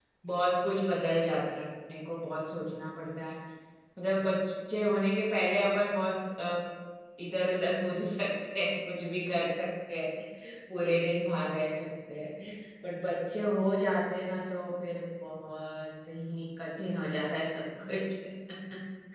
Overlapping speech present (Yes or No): No